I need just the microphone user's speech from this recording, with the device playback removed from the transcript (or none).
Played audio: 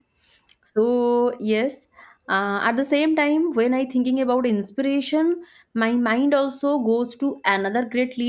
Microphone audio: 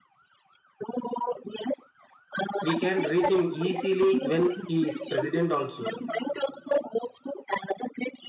we can reach him easily when he is president also,